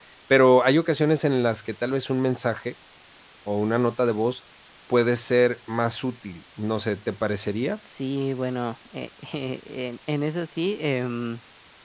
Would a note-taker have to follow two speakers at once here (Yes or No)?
No